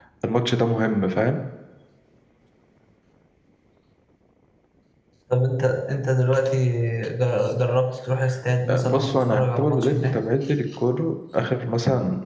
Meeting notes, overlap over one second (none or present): present